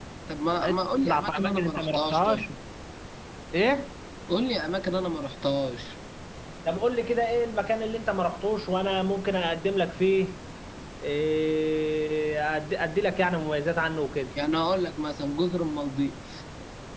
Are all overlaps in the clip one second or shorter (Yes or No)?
No